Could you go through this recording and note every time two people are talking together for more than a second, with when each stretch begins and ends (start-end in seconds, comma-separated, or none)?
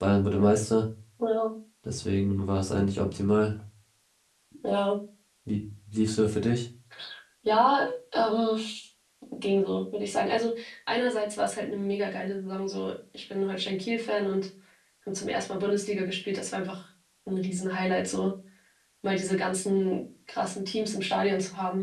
none